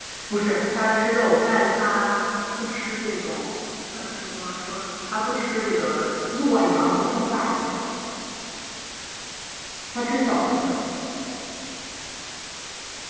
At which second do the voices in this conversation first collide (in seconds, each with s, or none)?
none